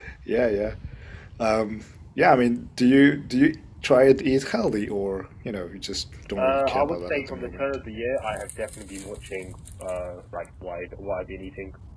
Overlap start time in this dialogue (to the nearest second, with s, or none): 6 s